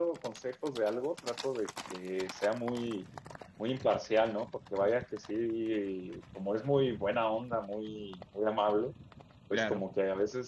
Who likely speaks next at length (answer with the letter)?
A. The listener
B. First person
B